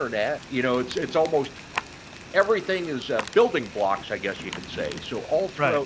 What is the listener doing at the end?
taking over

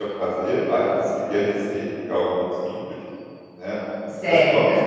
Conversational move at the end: listening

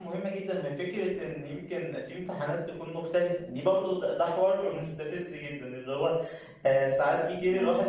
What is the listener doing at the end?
listening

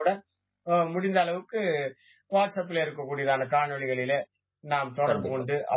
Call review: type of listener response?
listening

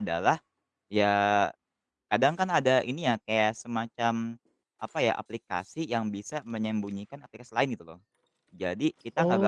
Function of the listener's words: taking over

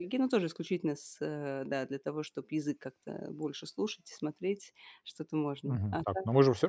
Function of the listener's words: taking over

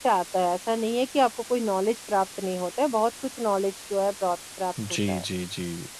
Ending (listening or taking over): taking over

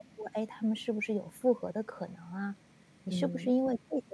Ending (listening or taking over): listening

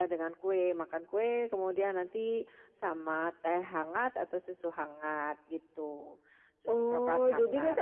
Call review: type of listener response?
taking over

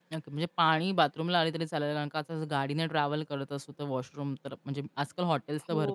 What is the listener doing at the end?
listening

